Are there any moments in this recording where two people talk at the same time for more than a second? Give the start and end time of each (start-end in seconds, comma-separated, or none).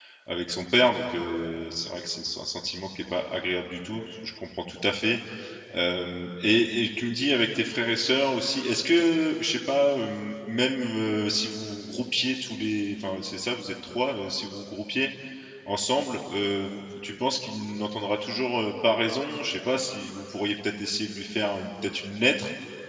none